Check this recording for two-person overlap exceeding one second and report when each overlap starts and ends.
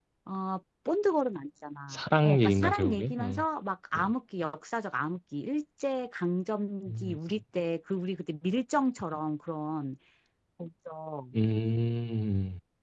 1.9-3.4

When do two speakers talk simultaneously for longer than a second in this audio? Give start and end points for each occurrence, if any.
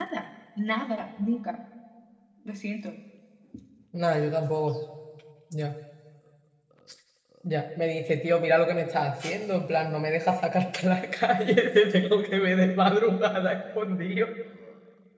none

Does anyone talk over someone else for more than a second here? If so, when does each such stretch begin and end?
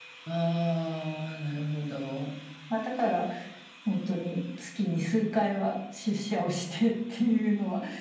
none

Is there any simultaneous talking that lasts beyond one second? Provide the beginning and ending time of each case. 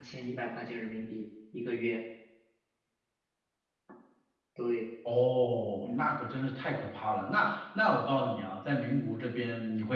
none

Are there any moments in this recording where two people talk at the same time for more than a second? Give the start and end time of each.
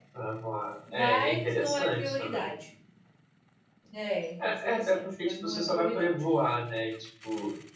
0.9-2.4, 4.4-6.1

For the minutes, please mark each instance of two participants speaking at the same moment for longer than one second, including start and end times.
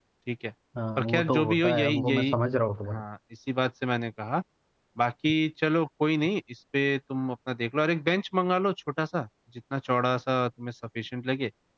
1.0-2.3

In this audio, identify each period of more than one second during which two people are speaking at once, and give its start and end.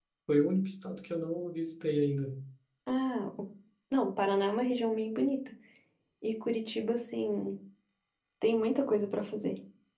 none

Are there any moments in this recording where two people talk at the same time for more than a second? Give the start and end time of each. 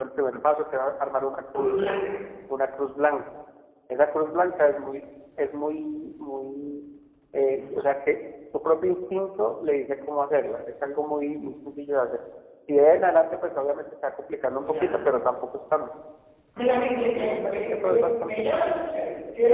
16.7-18.7

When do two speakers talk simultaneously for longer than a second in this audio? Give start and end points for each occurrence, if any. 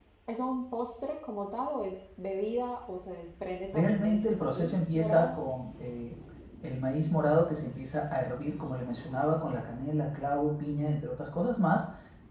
3.7-5.5

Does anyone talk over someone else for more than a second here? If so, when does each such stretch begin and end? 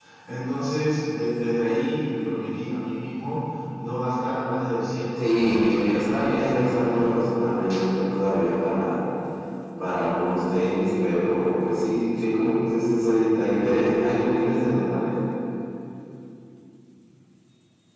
5.2-7.2

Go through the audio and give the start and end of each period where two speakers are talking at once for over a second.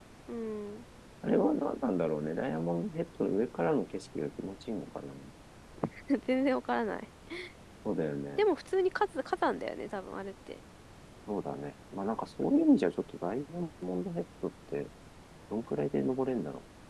none

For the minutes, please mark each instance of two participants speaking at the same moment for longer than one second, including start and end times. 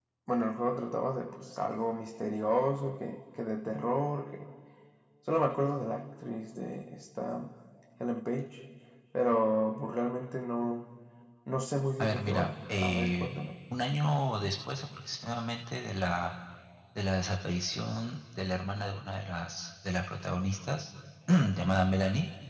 12.0-13.3

